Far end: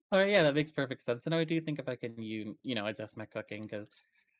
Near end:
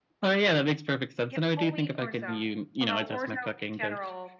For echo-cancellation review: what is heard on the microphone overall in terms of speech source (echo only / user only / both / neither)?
both